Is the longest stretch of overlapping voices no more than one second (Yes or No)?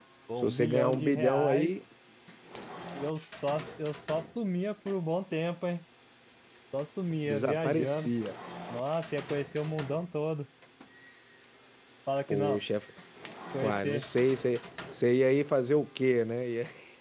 No